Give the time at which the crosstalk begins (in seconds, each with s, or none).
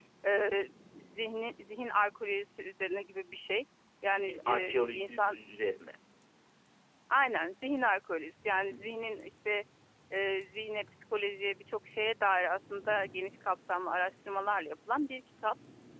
4.2 s